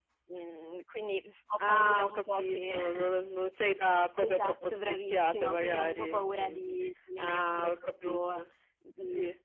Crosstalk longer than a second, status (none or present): present